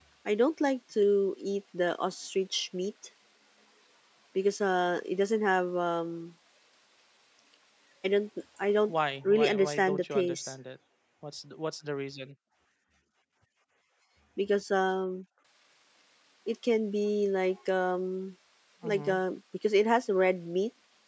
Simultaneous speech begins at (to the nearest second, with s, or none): 9 s